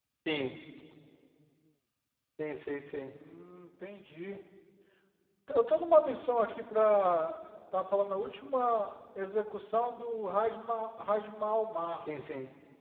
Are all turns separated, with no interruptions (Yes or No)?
Yes